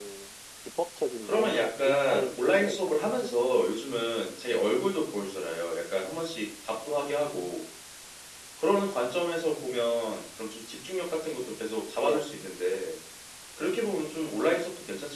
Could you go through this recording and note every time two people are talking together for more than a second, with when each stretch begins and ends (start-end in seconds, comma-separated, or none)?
1.2-3.7